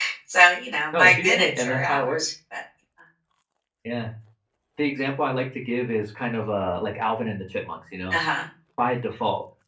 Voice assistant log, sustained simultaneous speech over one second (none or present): present